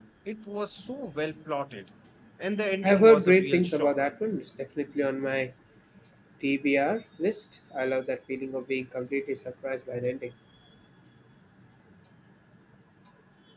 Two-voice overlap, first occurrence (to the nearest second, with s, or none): 3 s